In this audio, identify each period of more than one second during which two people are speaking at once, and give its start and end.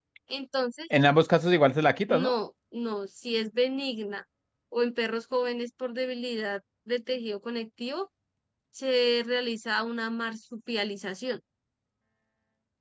none

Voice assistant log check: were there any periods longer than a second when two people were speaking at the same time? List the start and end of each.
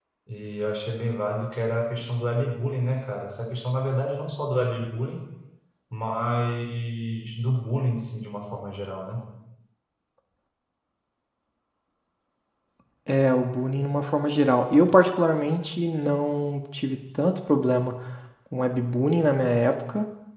none

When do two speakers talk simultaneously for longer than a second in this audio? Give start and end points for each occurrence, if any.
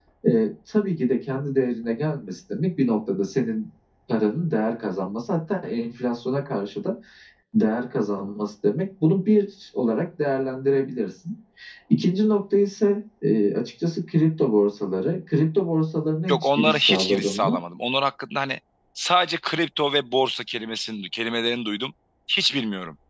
16.3-17.6

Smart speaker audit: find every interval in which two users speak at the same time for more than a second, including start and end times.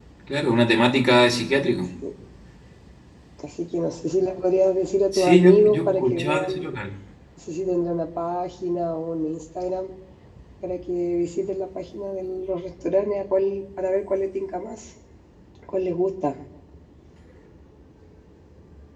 5.1-6.6

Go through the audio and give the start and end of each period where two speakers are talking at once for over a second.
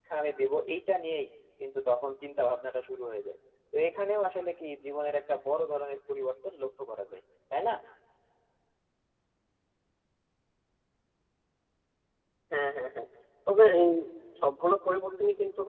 none

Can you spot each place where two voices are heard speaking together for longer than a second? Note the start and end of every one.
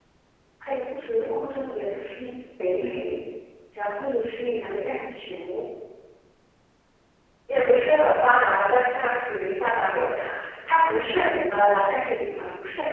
none

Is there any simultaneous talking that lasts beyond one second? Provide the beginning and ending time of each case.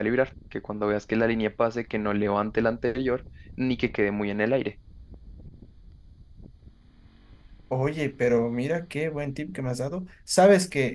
none

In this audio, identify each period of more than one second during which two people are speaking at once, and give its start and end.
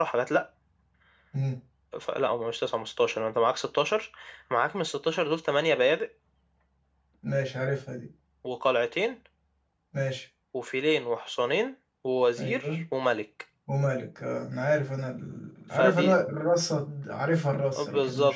none

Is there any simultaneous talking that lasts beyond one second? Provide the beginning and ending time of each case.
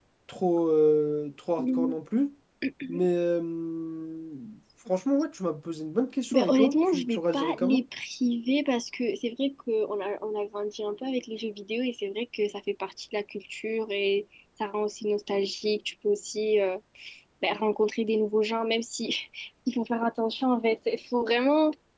6.3-7.8

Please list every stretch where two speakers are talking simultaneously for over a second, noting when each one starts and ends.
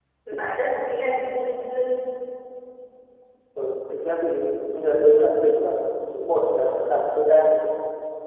none

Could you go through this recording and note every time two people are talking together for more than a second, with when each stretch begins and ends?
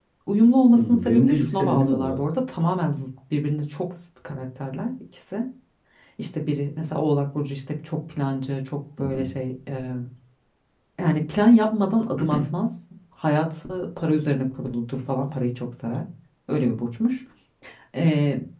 0.8-2.2

